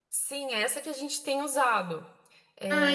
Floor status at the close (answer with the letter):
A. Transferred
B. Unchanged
A